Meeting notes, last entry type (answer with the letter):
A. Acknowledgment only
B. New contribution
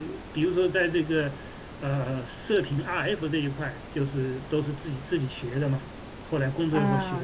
B